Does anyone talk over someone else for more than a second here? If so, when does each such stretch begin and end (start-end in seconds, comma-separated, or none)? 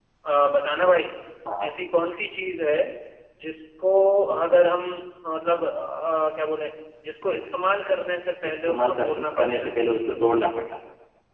8.4-9.7